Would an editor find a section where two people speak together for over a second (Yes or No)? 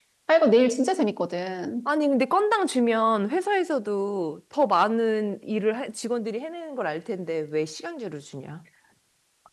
No